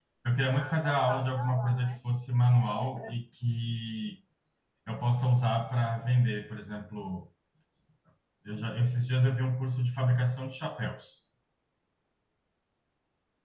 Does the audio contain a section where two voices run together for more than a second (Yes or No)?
Yes